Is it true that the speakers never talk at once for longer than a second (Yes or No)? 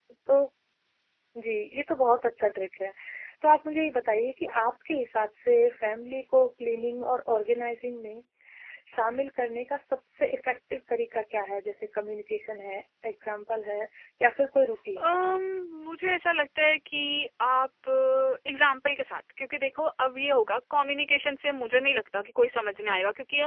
Yes